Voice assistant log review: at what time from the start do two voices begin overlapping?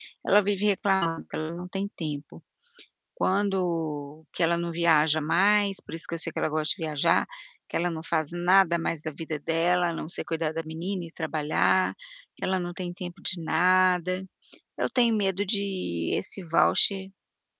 none

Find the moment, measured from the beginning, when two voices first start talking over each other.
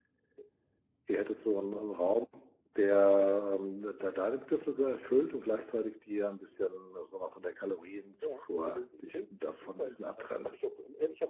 8 s

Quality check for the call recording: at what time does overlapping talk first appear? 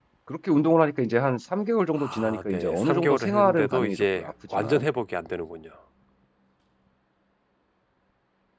2 s

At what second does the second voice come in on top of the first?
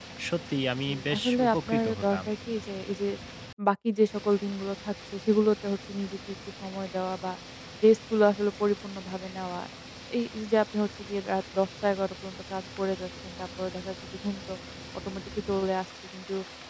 1 s

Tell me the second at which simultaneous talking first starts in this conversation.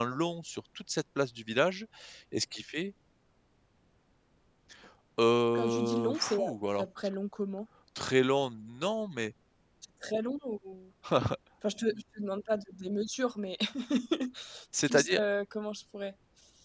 6 s

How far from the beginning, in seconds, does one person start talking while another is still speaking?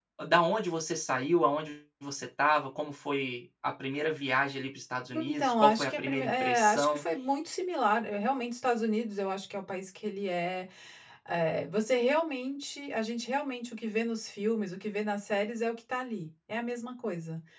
5 s

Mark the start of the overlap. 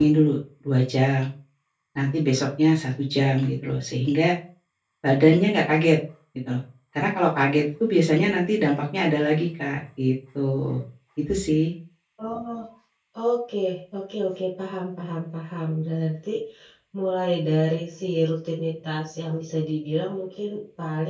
none

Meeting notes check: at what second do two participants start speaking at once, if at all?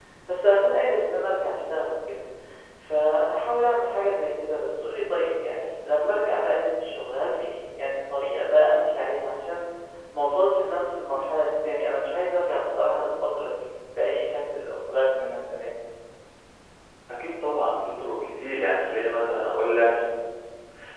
none

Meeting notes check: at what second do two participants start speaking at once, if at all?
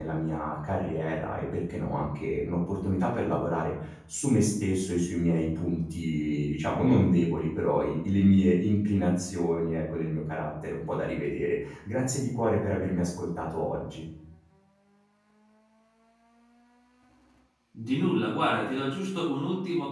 none

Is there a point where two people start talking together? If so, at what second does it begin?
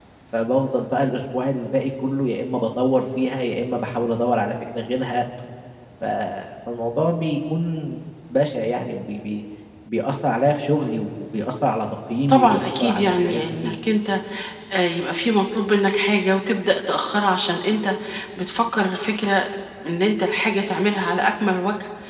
12 s

